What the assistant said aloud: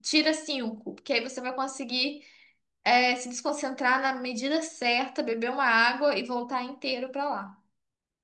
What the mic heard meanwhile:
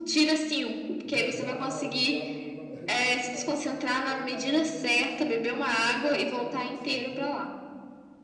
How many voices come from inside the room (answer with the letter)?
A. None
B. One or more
B